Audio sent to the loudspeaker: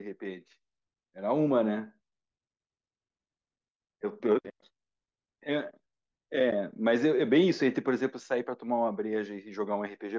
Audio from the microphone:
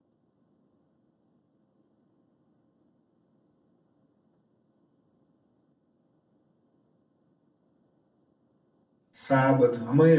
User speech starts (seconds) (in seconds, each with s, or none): 9.1 s